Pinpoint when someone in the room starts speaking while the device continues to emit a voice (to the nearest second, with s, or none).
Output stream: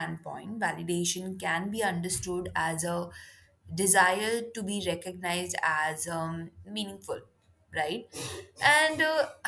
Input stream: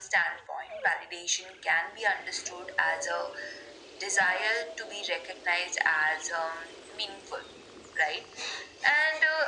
none